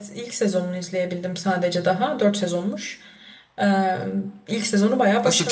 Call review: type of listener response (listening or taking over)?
taking over